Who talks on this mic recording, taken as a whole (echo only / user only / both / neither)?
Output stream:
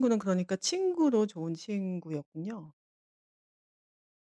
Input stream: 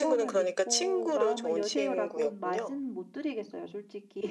both